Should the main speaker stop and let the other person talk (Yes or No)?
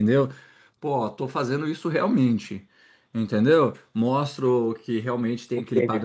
No